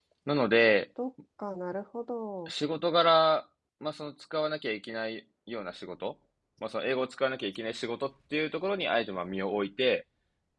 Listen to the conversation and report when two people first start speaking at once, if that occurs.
none

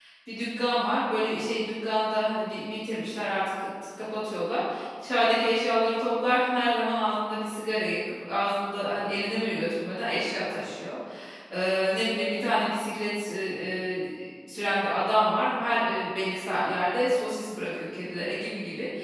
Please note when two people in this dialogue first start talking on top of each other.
none

